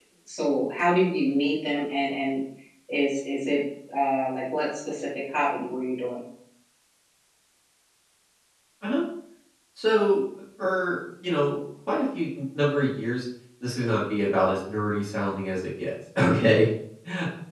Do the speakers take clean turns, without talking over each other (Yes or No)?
Yes